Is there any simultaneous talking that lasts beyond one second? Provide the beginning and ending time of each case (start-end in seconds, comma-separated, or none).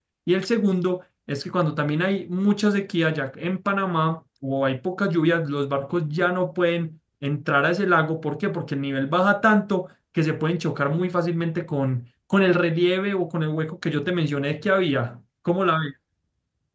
none